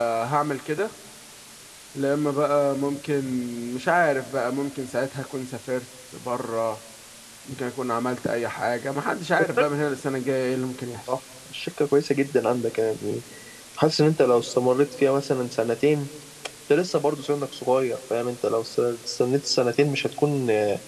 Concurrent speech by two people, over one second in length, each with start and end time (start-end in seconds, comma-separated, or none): none